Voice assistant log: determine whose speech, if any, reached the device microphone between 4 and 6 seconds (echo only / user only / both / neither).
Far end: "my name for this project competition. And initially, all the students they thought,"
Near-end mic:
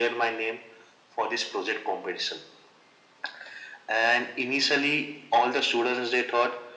echo only